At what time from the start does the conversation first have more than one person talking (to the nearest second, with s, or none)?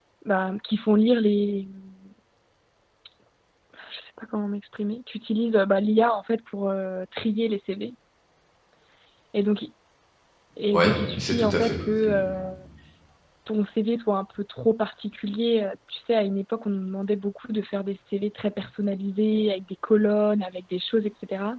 11 s